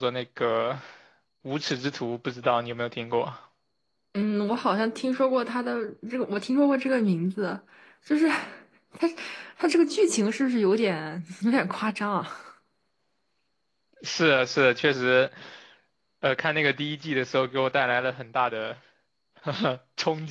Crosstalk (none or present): none